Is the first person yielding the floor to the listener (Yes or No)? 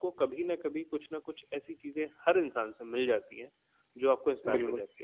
No